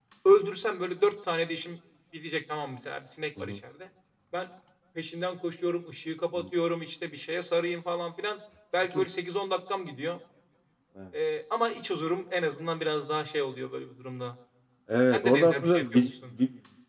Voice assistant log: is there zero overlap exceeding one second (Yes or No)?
No